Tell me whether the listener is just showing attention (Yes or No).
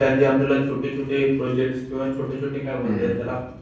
Yes